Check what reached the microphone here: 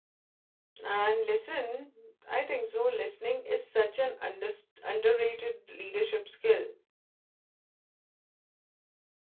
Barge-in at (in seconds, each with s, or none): 0.8 s